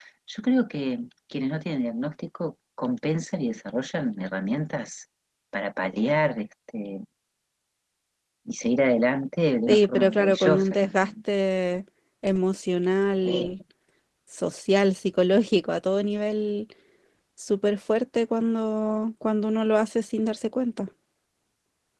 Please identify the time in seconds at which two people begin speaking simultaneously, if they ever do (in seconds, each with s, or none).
9.7 s